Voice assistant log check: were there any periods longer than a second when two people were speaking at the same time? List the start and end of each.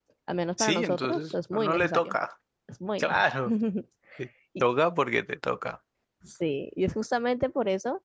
0.6-2.1

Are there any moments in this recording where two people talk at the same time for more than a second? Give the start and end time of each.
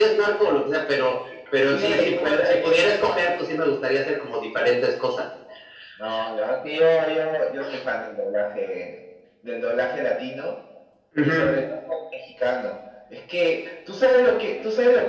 1.7-3.2

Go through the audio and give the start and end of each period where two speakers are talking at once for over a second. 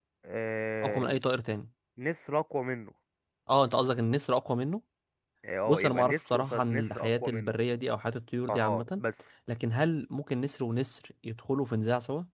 5.7-7.5

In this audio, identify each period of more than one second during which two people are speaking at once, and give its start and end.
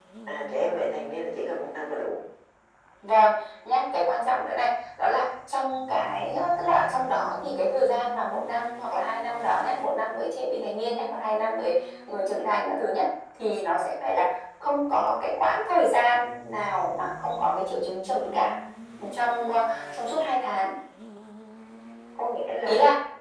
none

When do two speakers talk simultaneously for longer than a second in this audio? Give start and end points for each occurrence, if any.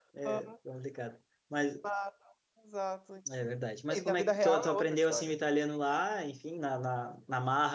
3.9-5.3

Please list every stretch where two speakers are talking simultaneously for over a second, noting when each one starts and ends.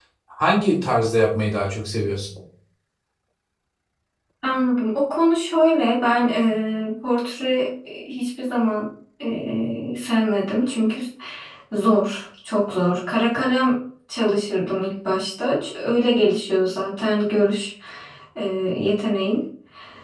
none

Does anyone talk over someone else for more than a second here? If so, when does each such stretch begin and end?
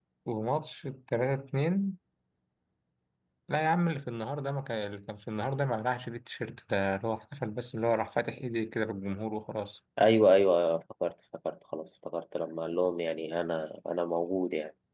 none

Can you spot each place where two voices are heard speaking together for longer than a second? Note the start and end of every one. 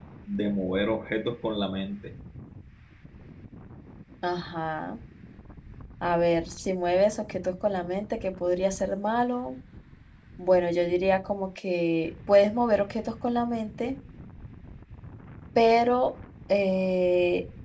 none

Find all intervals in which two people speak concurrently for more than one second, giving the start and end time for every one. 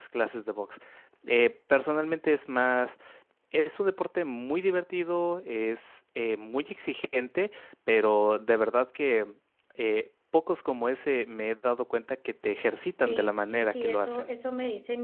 13.1-14.3

